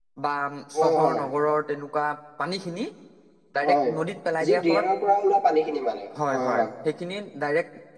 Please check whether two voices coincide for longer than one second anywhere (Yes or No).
No